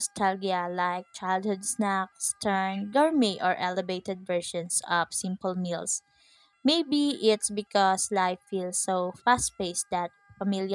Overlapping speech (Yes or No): No